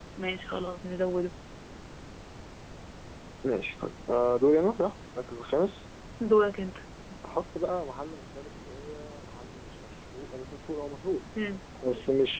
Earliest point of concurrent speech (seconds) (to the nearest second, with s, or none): none